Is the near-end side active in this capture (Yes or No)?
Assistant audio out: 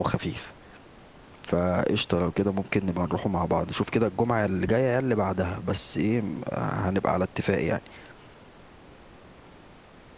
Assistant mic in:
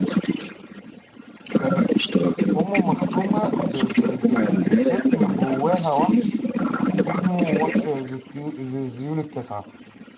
Yes